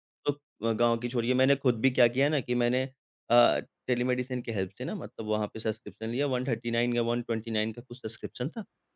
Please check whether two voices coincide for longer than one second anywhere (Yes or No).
No